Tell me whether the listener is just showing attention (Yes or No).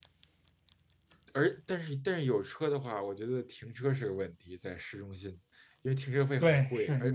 No